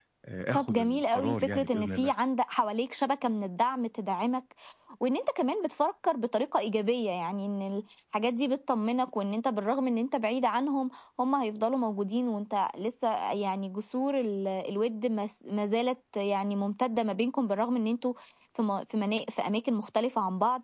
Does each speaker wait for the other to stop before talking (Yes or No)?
No